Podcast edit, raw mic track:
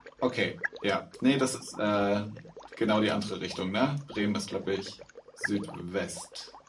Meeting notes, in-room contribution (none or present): none